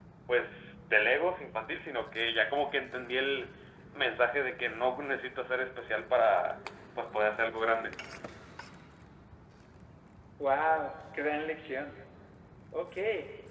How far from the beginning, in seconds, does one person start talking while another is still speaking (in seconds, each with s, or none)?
none